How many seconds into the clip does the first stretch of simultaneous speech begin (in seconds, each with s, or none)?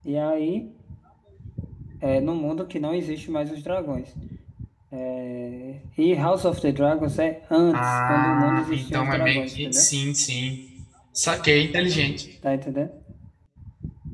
7.7 s